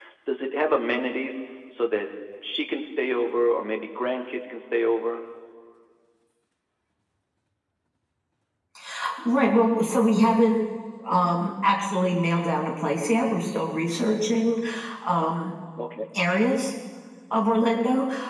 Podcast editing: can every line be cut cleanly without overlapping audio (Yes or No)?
Yes